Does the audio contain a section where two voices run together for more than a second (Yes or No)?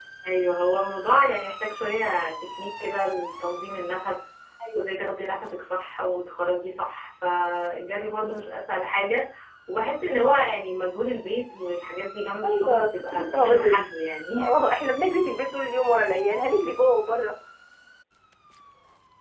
Yes